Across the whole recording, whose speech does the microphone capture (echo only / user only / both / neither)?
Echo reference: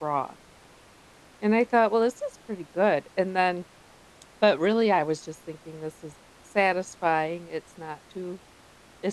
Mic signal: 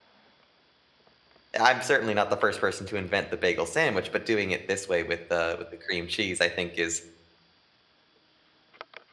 user only